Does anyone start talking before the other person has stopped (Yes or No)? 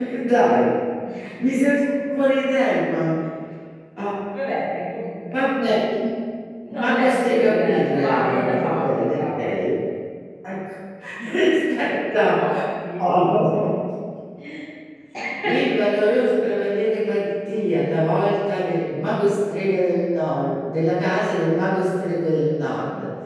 Yes